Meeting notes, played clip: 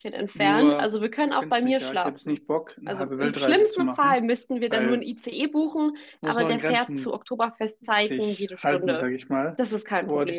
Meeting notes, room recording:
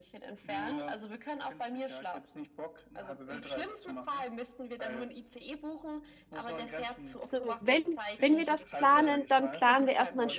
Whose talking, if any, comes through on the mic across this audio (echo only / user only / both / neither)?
both